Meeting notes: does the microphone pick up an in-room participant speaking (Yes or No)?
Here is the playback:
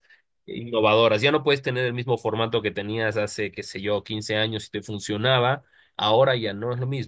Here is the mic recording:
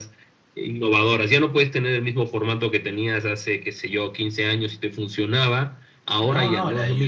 Yes